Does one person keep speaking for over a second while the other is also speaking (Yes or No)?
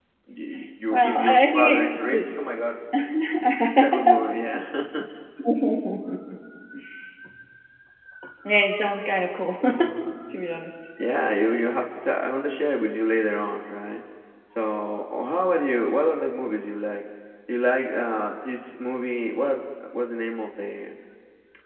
Yes